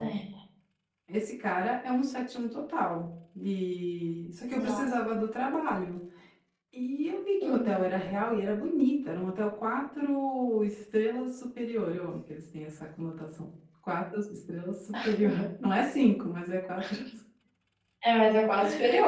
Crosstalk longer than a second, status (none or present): none